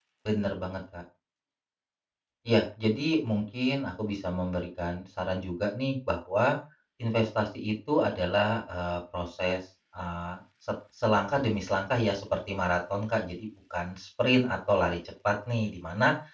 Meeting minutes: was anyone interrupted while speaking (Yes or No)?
No